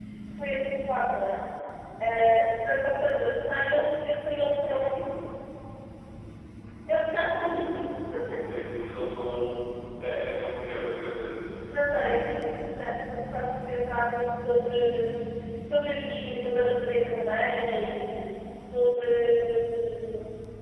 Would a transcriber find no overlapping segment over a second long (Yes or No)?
Yes